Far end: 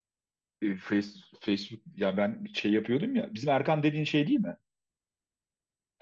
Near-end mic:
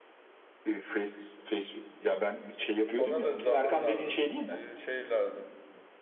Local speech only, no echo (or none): Ona da zaman lazım, bir şey lazım,